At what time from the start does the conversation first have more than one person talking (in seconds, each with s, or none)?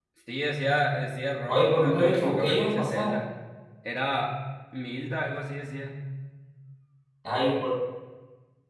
1.5 s